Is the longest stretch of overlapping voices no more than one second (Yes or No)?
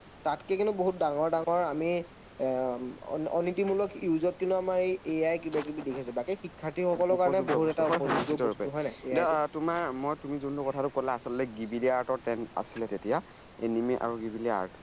No